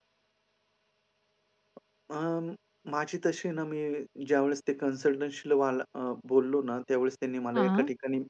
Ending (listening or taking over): listening